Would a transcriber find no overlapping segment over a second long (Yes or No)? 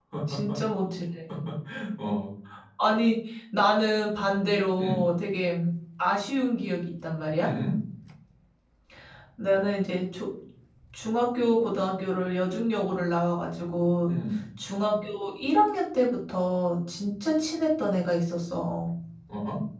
Yes